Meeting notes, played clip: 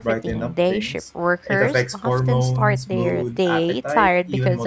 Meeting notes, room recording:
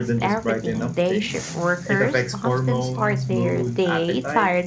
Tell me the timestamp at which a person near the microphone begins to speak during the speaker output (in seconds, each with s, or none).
none